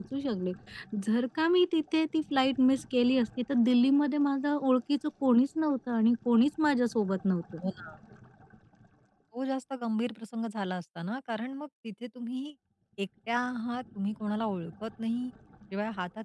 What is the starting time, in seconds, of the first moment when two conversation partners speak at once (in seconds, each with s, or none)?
none